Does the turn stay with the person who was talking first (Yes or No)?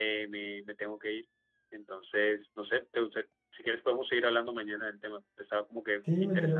No